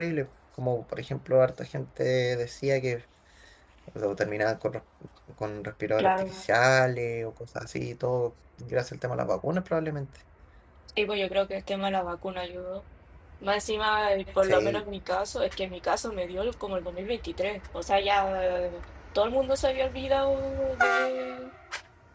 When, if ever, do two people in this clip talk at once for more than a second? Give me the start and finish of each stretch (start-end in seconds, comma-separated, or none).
none